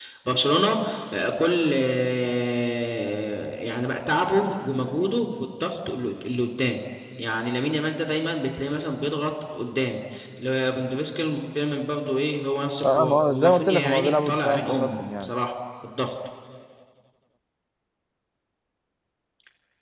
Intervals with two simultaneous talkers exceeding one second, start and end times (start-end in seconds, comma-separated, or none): 12.8-15.3